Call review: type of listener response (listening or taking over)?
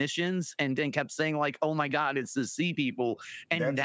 taking over